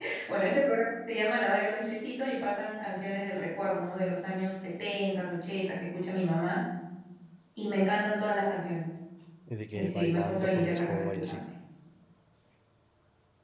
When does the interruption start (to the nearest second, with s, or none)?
10 s